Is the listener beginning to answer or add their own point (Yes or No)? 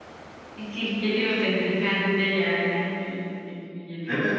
Yes